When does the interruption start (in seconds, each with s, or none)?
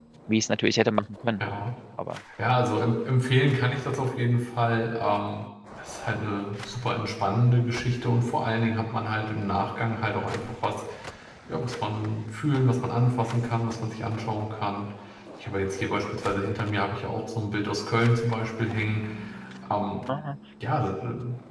none